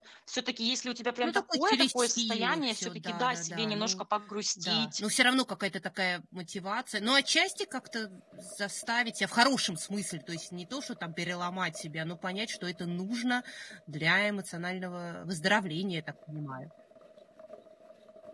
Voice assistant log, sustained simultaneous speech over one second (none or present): present